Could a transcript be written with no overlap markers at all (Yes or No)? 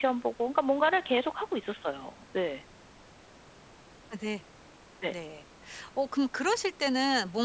Yes